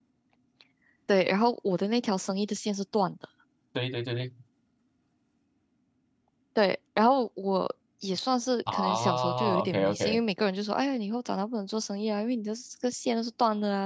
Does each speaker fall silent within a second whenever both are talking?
No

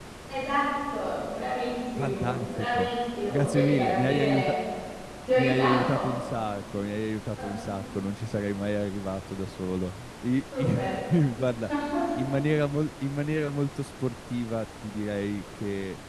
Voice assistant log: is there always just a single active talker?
No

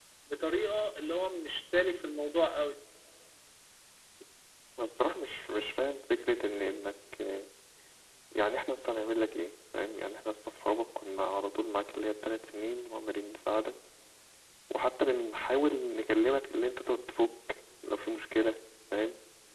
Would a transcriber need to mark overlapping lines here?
No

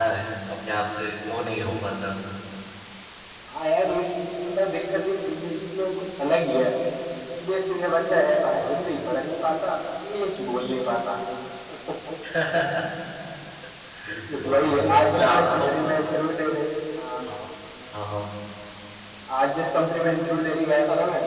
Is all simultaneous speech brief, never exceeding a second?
No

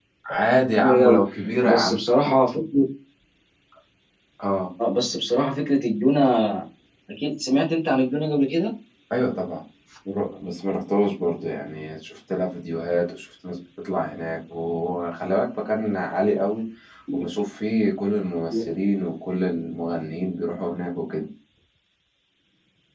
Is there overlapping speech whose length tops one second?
No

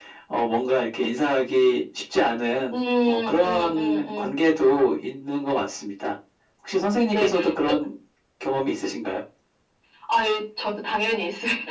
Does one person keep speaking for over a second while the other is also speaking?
Yes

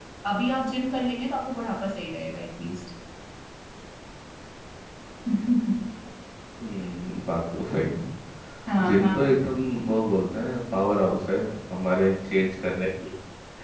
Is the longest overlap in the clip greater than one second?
No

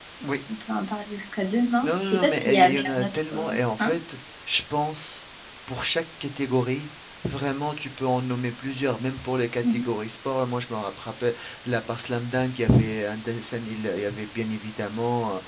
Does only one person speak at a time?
No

